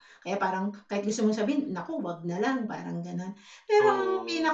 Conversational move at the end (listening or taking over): listening